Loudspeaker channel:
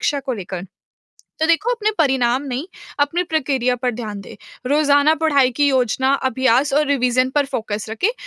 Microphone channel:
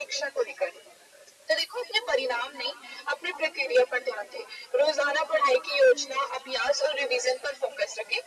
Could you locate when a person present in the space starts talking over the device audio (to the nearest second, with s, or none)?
none